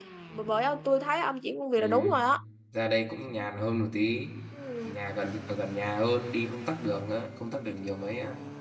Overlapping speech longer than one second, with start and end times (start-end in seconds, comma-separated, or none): none